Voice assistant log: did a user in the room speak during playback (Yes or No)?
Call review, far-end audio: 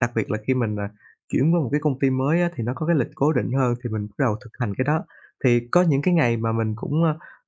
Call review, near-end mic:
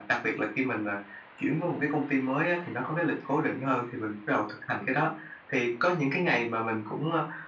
No